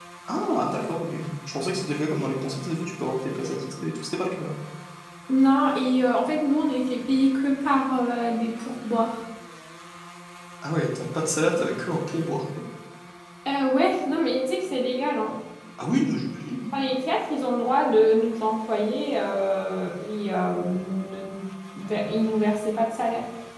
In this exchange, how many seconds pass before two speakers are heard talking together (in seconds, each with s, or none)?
none